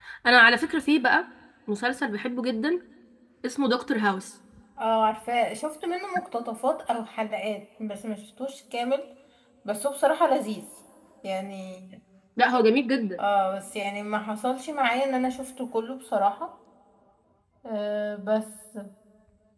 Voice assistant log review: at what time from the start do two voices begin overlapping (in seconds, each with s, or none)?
none